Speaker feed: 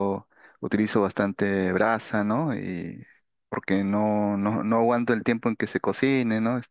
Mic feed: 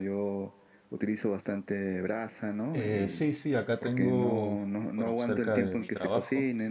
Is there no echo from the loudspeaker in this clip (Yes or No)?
No